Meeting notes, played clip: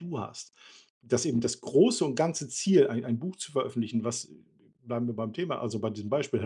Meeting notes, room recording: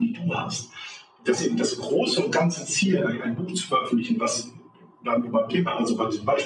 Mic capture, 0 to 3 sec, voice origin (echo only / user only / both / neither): echo only